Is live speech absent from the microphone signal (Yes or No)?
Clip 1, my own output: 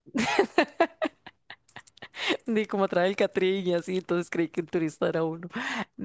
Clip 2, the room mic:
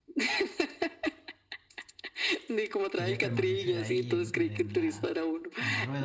No